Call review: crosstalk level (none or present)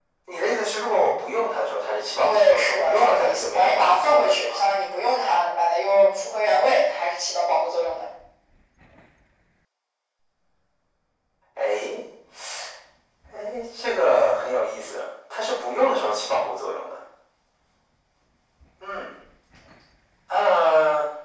present